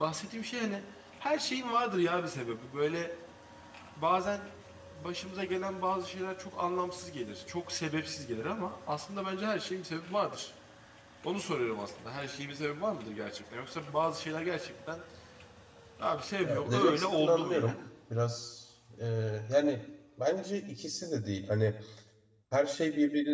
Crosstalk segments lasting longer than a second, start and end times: 16.4-17.8

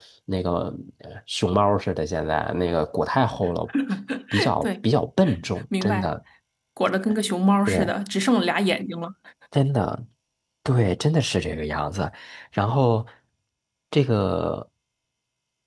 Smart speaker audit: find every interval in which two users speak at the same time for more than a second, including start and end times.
none

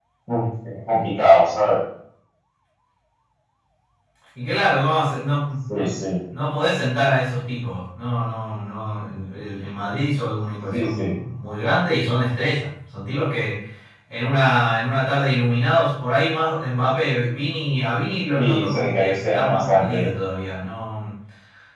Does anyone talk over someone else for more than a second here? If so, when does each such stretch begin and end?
18.4-20.1

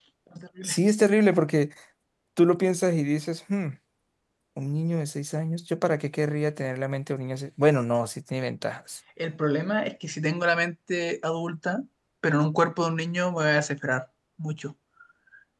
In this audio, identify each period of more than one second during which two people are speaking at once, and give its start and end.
none

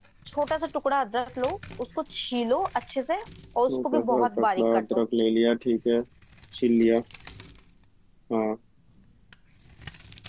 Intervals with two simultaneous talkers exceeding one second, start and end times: 3.7-5.0

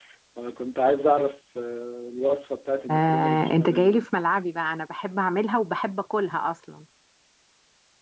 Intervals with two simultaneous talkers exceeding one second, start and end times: 2.9-4.2

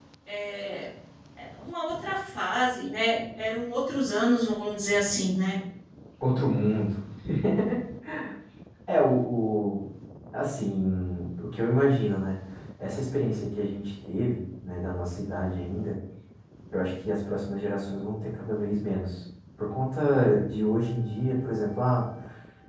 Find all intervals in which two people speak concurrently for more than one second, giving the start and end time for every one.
none

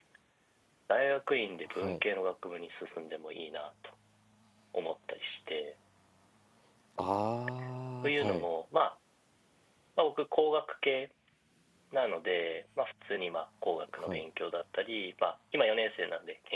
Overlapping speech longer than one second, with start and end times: none

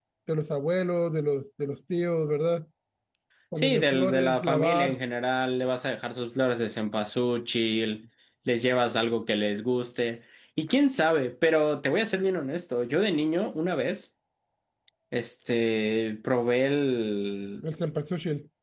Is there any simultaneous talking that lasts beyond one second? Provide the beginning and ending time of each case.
3.6-5.0

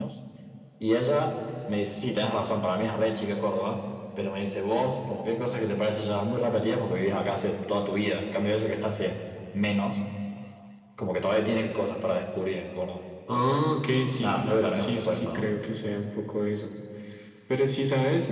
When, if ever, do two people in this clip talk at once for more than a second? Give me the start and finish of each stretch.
14.2-15.4

